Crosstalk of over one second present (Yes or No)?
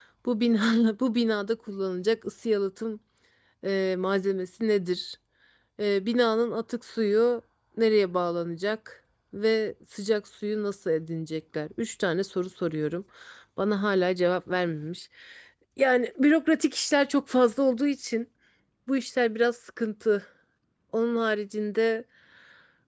No